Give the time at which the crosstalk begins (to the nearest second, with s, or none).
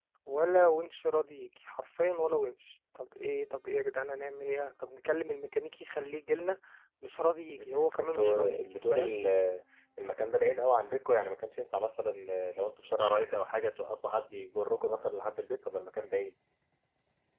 8 s